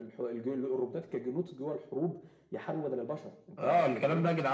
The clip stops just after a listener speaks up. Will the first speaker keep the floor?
No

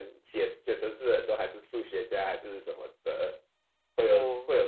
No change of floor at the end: Yes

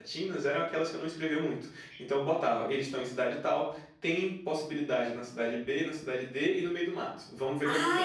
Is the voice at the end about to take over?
Yes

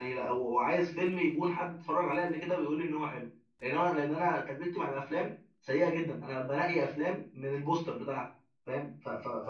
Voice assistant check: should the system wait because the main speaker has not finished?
No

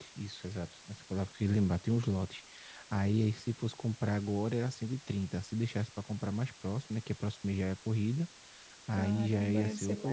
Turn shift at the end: Yes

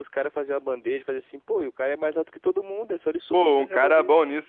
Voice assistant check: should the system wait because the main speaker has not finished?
No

